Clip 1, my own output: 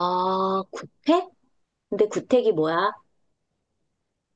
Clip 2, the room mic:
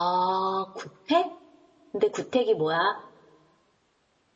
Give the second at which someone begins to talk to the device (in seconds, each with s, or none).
none